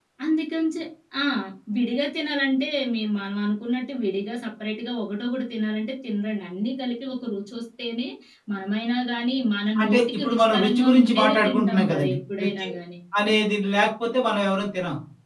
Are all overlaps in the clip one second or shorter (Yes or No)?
No